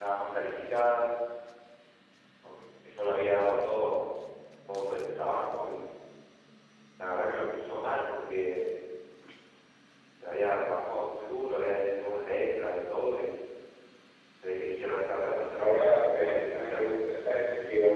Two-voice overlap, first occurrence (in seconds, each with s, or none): 15.2 s